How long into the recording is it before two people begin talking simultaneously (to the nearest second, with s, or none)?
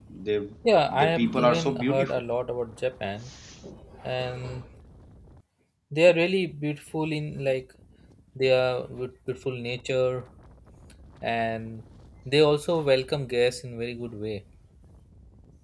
1 s